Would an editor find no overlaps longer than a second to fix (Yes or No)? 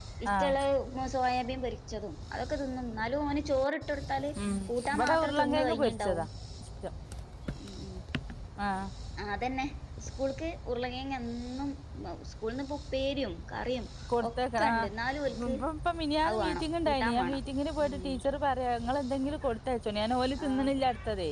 No